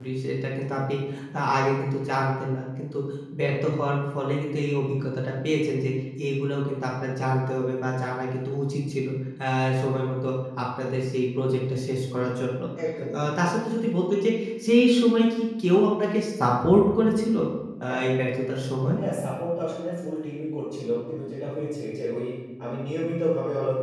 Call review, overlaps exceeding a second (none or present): none